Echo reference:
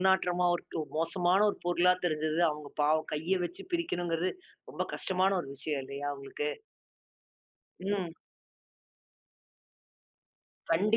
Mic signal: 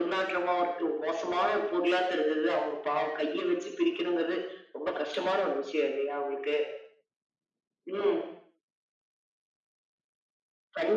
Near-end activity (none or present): none